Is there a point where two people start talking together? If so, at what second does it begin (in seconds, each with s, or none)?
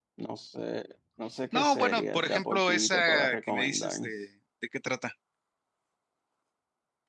1.5 s